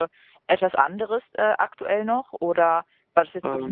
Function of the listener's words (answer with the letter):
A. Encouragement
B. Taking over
A